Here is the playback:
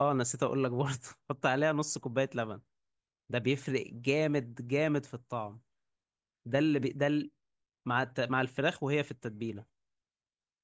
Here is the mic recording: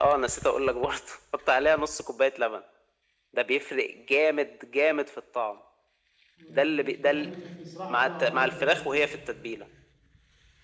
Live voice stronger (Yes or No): No